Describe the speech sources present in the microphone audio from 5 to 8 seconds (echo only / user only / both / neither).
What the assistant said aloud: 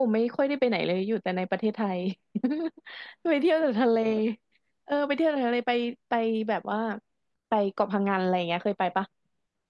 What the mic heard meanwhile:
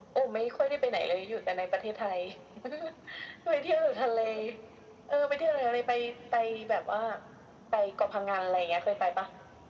echo only